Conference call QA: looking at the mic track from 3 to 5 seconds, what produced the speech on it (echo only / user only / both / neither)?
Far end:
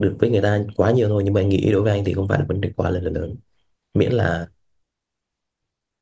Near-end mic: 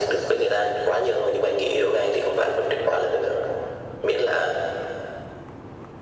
echo only